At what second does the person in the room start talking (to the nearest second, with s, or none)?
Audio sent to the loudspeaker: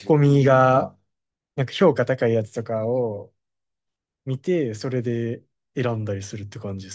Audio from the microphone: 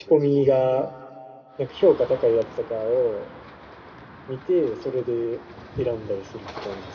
none